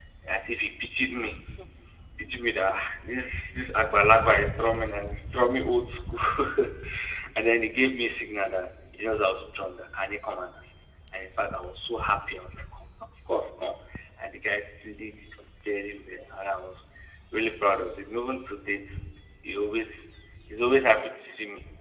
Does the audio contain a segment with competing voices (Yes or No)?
No